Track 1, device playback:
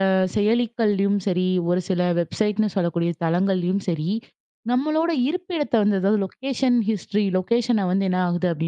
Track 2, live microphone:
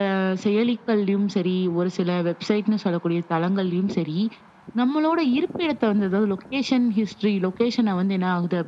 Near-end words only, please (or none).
none